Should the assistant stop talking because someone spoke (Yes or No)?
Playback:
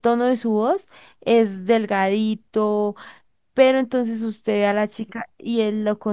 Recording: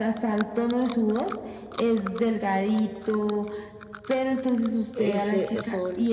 Yes